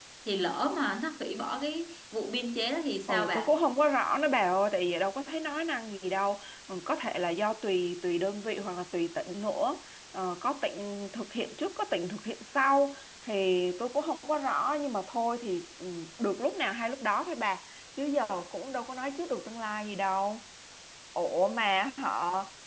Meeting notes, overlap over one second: none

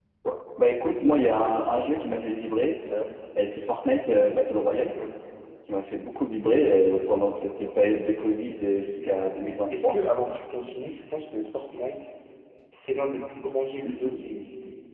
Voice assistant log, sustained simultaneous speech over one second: none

